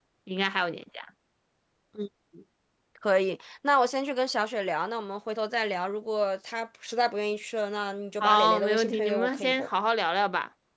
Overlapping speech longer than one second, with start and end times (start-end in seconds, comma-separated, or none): 8.2-9.7